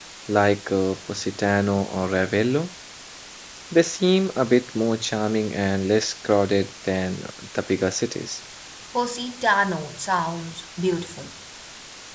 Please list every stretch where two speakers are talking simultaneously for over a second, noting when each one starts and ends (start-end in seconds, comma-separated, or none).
none